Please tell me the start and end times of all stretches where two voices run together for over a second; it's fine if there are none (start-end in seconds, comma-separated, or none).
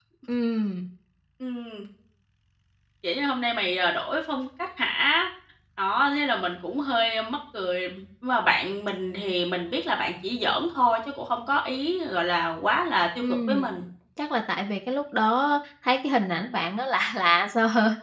none